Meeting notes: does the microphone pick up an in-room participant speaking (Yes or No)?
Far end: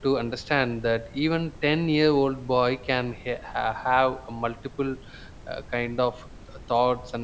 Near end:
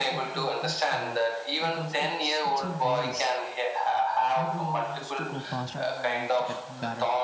Yes